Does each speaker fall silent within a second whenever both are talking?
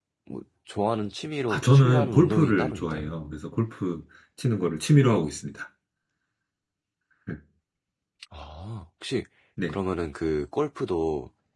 No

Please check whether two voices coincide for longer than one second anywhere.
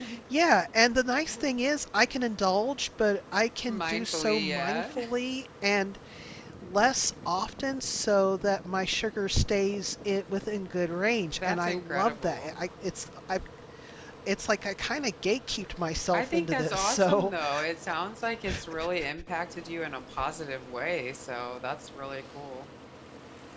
Yes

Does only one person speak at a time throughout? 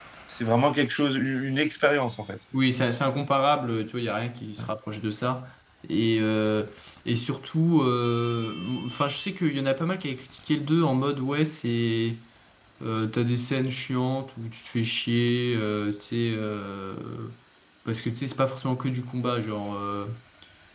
Yes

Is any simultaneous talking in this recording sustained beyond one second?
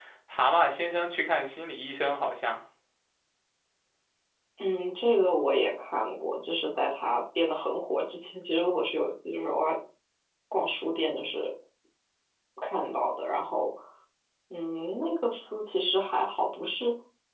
No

